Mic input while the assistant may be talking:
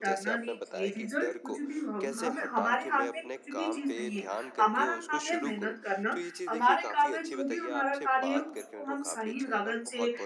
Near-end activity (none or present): present